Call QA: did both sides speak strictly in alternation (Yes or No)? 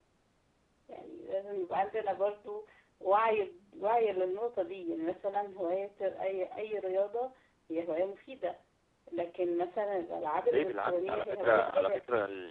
No